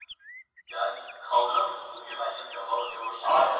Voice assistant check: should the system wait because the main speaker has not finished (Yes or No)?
No